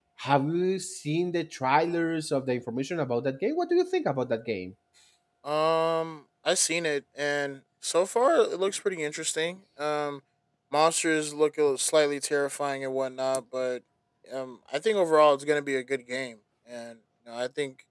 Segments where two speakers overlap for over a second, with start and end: none

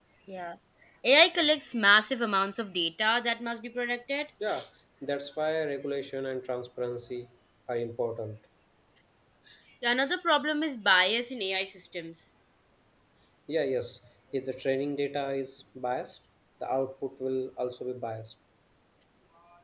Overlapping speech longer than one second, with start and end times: none

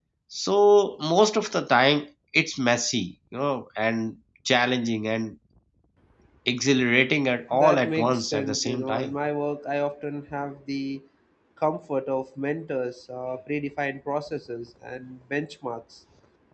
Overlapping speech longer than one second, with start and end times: 7.5-9.1

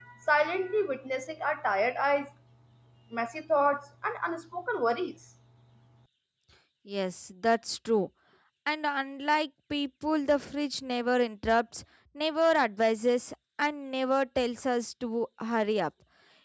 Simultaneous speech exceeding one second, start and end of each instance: none

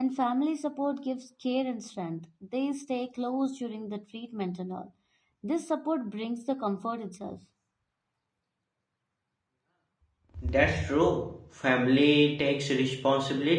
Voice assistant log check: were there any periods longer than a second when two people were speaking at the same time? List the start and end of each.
none

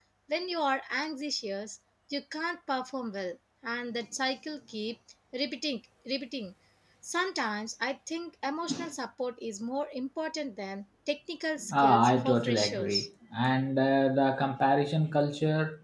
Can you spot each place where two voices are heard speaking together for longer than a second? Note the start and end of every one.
11.7-13.1

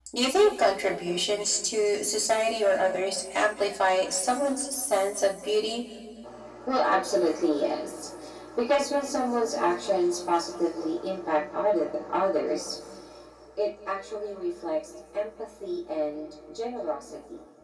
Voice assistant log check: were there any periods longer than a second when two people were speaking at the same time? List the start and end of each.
none

